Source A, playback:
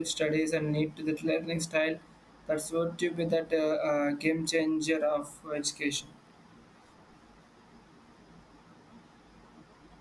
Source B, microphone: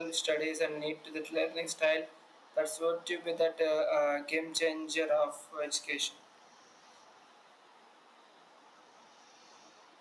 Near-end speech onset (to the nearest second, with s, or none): none